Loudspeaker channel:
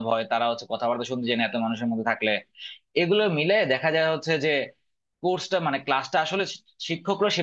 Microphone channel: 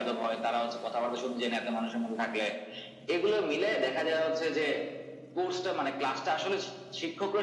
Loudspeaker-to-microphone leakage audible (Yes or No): Yes